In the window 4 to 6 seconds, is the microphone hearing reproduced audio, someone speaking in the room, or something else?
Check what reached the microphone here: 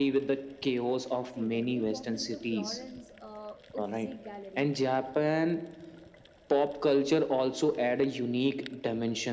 both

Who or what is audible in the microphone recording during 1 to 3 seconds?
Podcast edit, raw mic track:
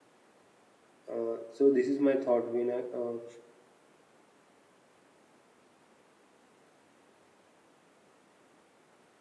user only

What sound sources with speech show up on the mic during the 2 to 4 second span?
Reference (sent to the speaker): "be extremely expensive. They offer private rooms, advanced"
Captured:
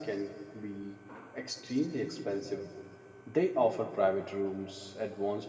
echo only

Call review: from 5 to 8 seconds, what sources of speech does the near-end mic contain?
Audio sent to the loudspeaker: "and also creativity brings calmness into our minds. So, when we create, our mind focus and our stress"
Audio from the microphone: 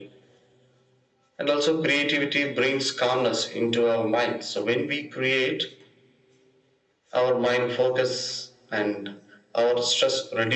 echo only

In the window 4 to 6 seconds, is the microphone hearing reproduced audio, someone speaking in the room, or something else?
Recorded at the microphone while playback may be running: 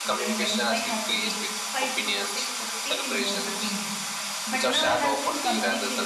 both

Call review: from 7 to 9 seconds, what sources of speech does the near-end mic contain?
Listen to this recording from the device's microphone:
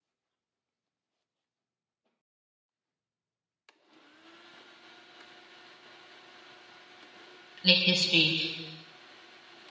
user only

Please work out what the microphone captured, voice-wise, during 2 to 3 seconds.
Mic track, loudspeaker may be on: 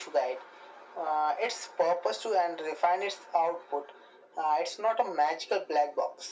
echo only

